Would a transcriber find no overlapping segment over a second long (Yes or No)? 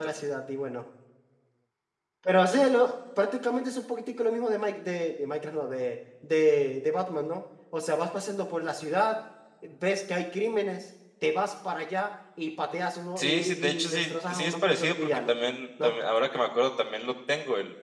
No